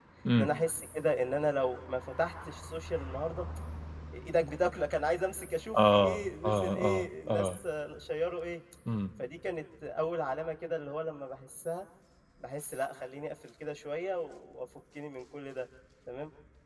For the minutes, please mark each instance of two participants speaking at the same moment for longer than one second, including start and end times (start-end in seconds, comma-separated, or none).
5.8-7.6